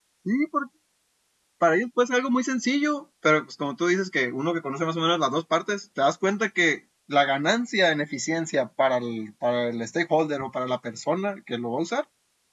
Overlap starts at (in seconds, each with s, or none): none